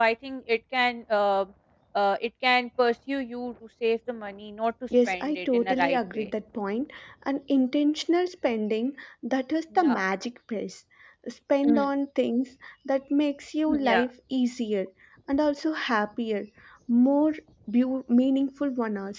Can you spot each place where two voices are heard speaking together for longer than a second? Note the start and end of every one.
5.1-6.3

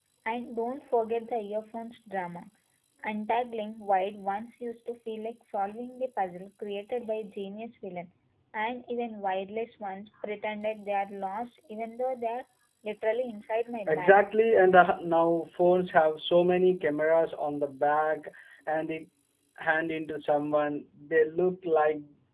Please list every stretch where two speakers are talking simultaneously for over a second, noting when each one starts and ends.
none

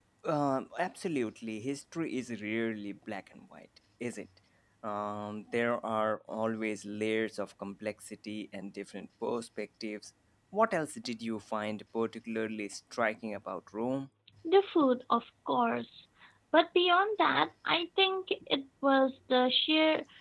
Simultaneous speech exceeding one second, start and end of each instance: none

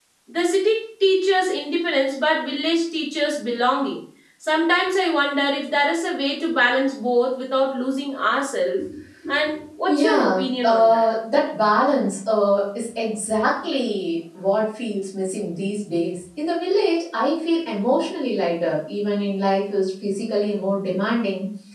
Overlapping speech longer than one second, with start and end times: 9.9-11.1

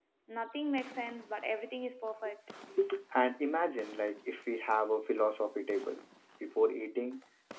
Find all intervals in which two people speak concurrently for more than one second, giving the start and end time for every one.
none

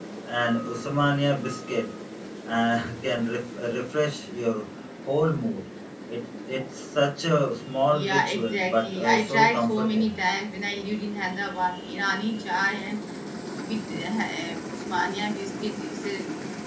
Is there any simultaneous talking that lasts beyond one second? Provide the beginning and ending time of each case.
7.9-10.2

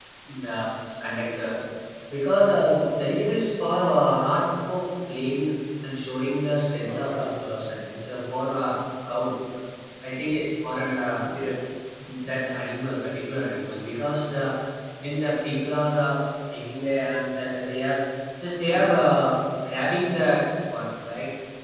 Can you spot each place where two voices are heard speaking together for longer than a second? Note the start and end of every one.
none

